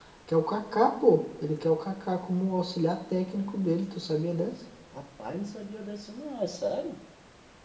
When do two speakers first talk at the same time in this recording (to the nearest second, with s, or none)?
none